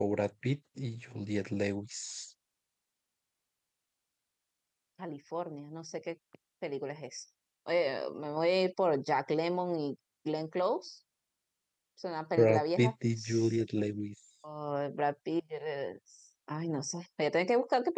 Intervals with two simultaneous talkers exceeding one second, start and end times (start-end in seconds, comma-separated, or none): none